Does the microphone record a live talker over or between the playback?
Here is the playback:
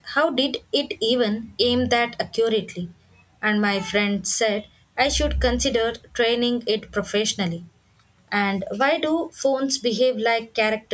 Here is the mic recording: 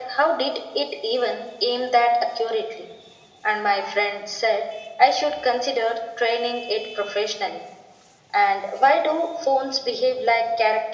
No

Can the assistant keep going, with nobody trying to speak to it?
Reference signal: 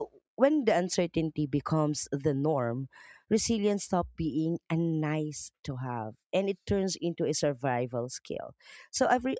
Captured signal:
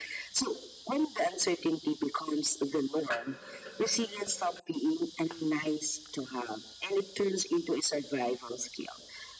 Yes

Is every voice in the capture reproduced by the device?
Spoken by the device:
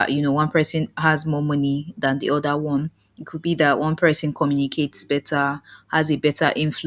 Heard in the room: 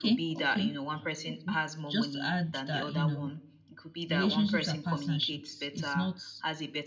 No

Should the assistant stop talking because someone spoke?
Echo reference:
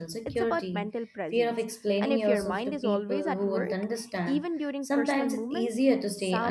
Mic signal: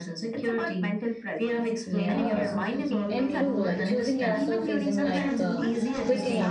Yes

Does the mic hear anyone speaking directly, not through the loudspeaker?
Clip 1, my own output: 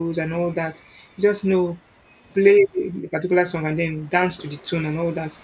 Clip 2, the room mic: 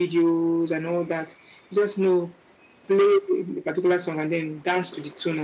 No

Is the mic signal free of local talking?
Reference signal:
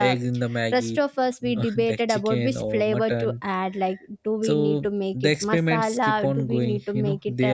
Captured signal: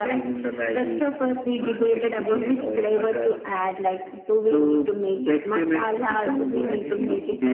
No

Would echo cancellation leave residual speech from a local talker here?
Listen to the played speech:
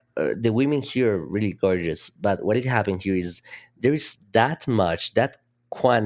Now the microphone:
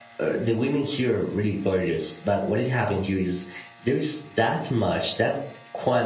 No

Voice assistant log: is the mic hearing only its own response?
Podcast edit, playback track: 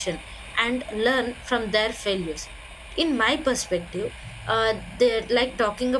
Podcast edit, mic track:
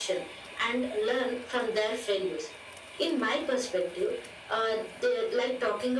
Yes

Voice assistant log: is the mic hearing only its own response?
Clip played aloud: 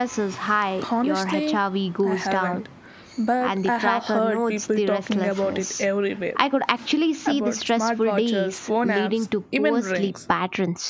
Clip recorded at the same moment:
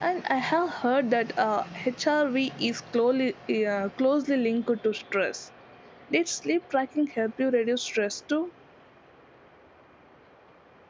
No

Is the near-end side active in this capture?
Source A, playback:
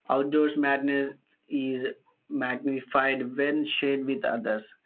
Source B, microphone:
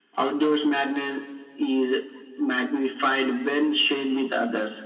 No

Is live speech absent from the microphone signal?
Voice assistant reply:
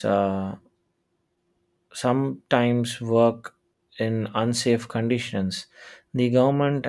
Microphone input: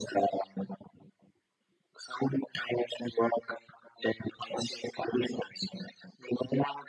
Yes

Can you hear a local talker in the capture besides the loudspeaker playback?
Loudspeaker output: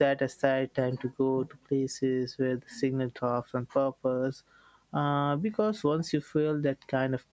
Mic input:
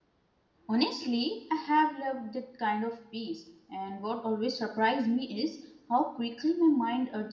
Yes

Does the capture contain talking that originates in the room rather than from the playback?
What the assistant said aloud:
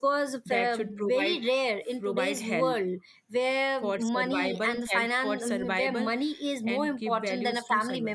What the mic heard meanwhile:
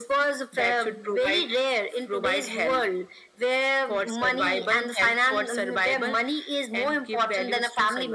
No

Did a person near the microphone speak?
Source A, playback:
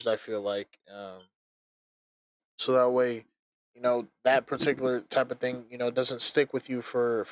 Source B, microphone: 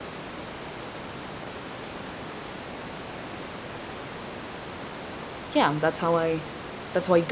Yes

